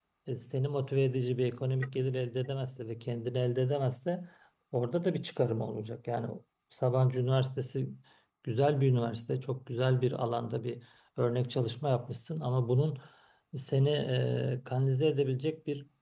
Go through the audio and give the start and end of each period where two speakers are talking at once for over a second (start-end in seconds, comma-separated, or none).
none